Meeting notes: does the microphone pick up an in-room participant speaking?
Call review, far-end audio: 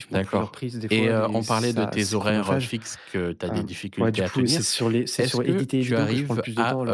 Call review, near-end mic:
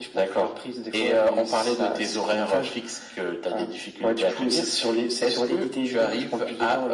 No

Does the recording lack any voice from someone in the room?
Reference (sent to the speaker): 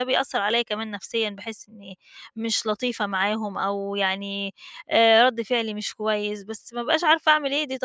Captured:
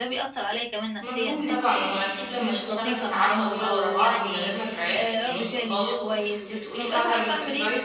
No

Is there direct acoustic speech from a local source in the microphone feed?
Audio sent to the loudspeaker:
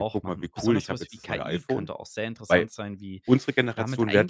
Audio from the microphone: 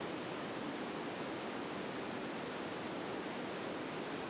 No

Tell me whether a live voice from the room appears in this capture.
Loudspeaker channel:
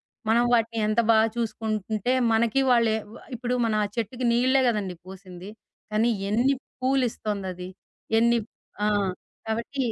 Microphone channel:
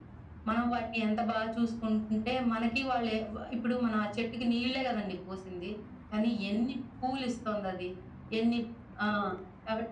No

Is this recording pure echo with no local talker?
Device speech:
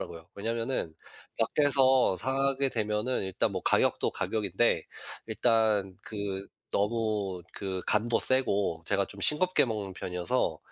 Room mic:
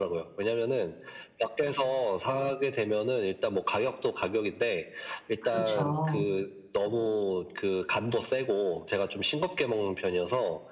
No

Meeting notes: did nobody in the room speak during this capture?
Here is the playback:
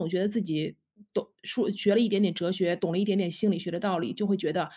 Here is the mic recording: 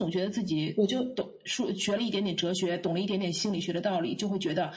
No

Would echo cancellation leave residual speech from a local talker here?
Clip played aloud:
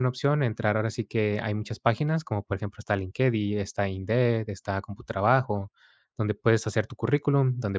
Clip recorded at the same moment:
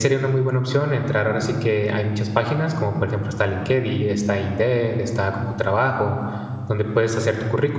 No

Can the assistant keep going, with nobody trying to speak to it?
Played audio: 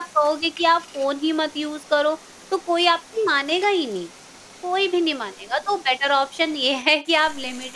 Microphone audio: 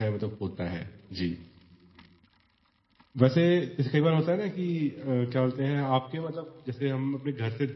No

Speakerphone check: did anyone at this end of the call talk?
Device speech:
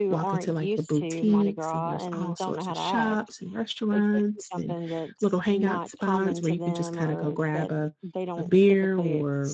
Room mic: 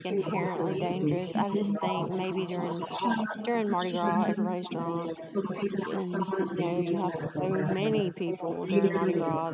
Yes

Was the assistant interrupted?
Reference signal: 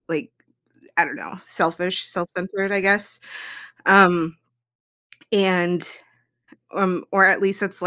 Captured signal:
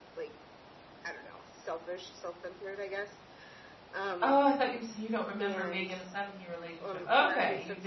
Yes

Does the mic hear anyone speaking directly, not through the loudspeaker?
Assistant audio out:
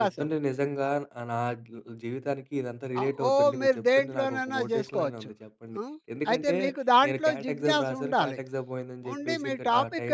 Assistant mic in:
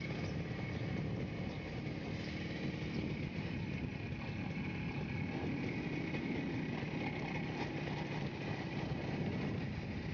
No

